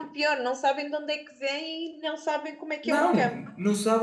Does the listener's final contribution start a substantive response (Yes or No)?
Yes